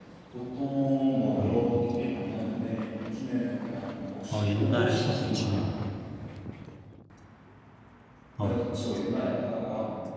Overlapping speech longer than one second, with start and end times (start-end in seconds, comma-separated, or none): 4.3-5.6